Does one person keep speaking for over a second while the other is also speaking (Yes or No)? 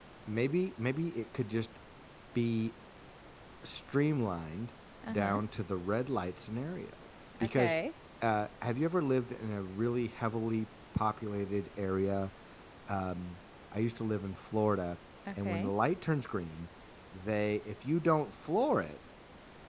No